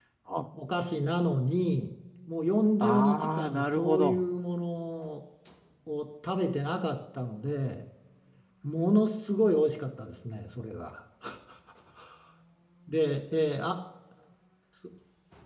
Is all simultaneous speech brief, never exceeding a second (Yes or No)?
No